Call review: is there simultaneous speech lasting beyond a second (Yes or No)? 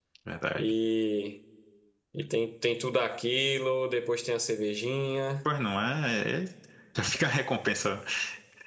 No